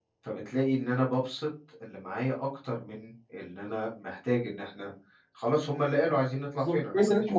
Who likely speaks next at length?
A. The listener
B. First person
A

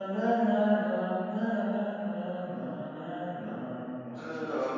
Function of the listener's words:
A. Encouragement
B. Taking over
B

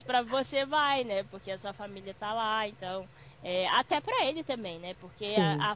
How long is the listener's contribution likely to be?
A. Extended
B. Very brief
B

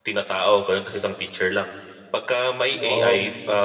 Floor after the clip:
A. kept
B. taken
A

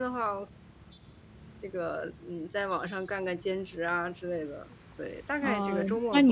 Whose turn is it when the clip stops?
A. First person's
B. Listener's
B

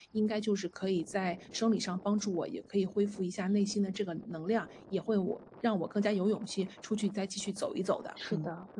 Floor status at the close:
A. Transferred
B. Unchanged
A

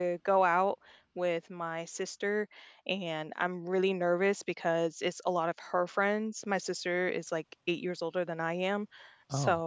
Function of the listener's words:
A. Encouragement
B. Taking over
A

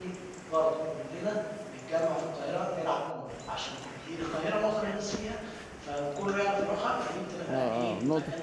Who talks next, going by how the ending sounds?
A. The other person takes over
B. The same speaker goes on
A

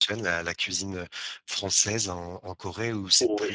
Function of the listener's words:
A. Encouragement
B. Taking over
B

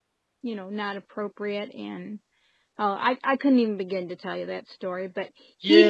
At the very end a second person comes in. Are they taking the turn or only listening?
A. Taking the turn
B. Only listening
A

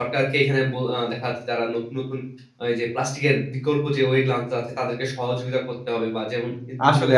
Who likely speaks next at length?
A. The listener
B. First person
B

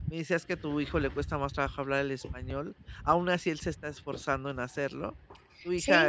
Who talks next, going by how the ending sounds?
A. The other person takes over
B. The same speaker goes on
A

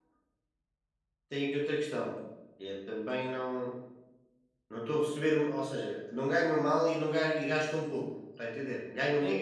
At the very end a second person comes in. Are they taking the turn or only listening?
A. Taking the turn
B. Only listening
A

